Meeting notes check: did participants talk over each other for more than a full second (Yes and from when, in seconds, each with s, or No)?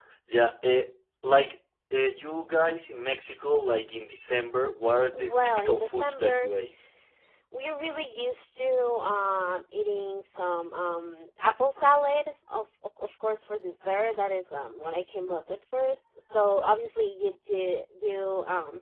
Yes, from 5.1 s